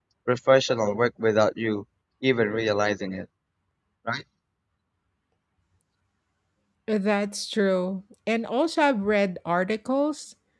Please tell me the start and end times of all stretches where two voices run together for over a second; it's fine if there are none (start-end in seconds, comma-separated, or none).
none